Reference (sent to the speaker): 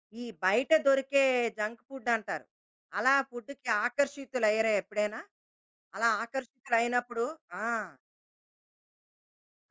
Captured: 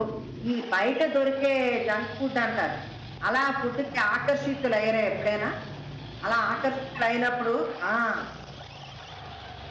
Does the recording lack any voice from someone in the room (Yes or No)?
Yes